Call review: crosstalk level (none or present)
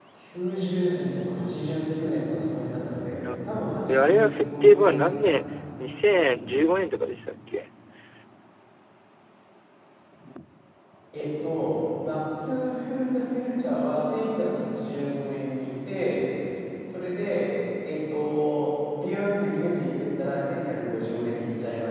present